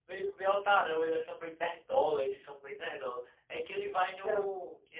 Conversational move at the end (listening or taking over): listening